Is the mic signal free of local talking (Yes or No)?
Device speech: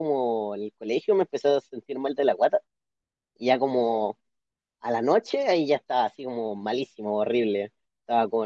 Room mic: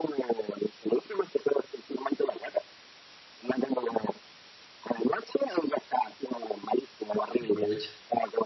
No